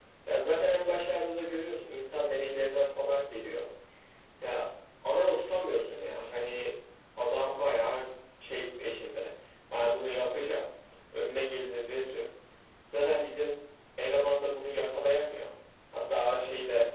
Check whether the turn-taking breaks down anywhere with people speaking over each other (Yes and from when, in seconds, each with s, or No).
No